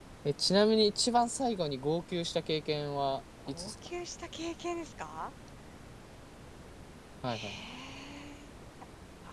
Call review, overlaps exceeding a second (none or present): none